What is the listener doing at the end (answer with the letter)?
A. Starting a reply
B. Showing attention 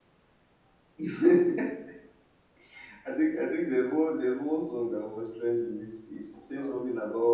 B